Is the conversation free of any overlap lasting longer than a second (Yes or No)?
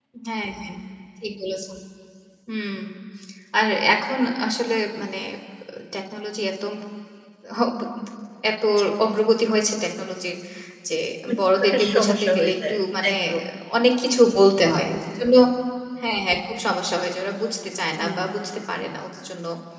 No